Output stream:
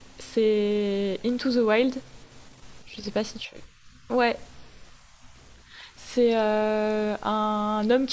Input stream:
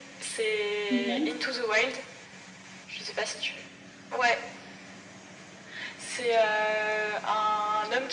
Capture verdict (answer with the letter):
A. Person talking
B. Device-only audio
A